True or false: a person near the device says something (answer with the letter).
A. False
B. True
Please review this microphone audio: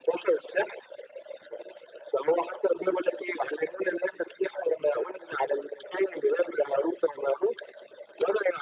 A